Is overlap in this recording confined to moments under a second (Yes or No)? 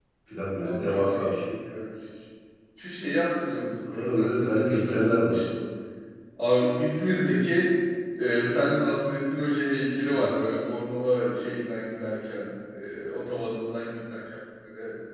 No